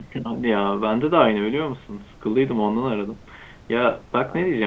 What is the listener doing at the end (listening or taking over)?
listening